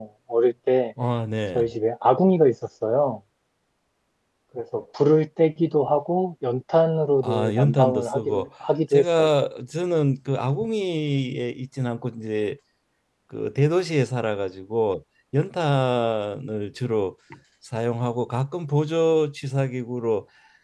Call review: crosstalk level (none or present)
present